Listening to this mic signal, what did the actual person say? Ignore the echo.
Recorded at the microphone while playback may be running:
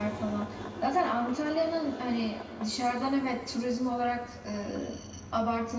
none

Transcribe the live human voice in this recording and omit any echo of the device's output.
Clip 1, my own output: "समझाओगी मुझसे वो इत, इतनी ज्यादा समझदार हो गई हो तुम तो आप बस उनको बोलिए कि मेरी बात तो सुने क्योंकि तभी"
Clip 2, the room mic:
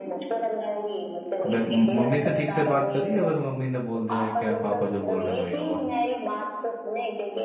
फिर म- मम्मी से ठीक से बात करी है बस मम्मी ने बोल दिया है क्या पापा जो बोल रहे हैं वही होगा

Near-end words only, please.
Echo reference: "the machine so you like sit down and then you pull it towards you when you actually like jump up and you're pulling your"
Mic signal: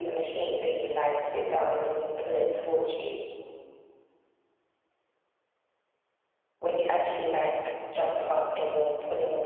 none

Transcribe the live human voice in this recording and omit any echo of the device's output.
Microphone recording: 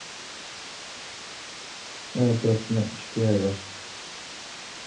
Evet 4060 Ti var.

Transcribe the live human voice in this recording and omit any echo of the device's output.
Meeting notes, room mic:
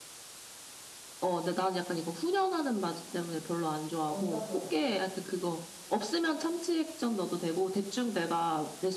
얹어서 먹거든.

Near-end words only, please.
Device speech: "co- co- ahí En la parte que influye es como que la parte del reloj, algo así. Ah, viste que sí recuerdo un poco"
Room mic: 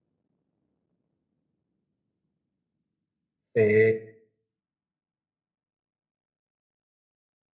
Eh,

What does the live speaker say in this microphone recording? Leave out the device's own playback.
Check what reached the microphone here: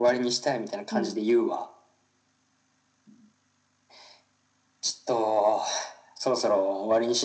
うん

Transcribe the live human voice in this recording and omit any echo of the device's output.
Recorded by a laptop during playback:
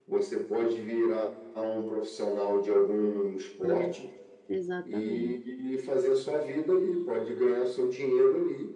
É, exatamente.

